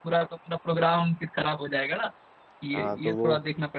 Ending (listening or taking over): taking over